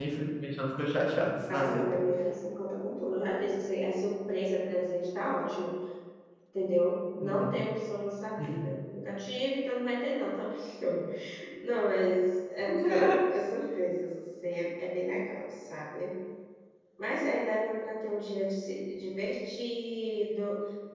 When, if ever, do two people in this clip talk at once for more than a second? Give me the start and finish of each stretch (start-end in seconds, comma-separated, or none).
none